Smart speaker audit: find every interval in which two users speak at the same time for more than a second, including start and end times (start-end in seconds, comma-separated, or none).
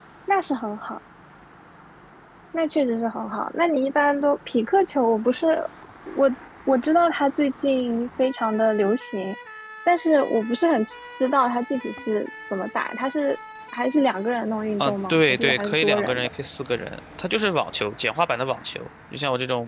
14.8-16.3